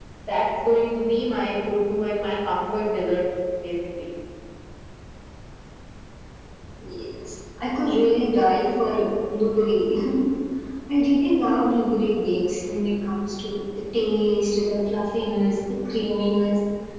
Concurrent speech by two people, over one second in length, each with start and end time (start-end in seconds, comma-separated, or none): none